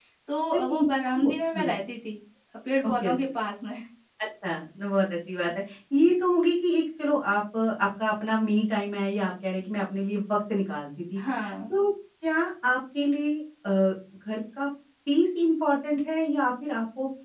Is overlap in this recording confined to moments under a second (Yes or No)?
Yes